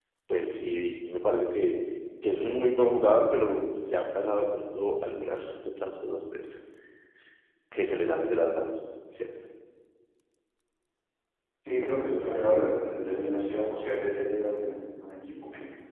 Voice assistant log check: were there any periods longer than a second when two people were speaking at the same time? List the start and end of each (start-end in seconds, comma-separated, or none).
none